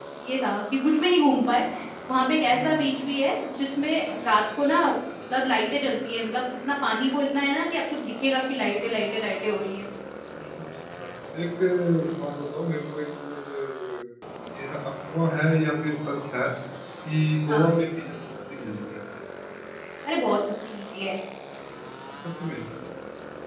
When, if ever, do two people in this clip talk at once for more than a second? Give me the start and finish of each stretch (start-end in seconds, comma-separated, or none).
none